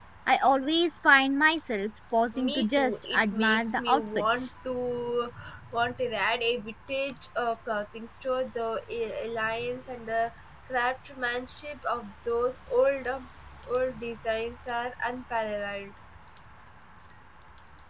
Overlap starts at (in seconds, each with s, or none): 2.3 s